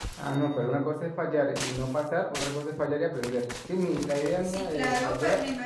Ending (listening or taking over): taking over